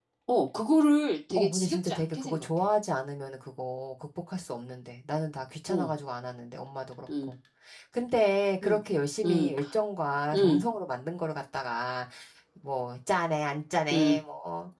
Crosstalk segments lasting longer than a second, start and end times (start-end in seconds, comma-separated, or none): 1.4-2.6